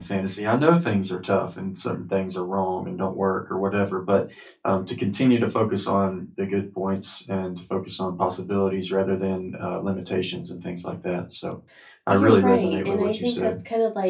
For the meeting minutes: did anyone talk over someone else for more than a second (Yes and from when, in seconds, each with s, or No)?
Yes, from 12.1 s